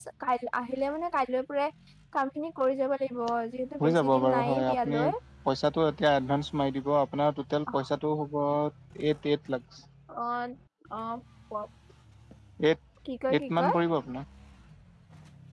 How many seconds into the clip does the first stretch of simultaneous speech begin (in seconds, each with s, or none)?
3.8 s